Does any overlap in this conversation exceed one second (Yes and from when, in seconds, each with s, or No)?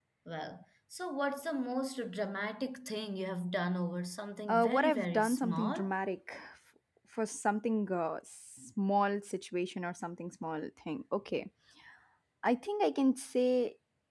Yes, from 4.5 s